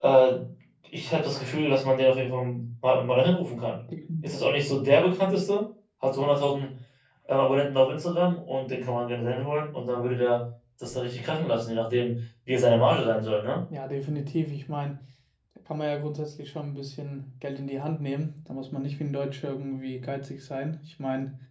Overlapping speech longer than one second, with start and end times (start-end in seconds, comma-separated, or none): none